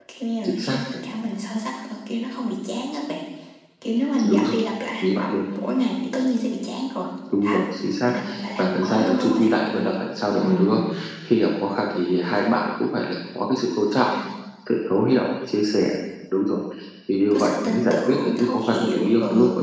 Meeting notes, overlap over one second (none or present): present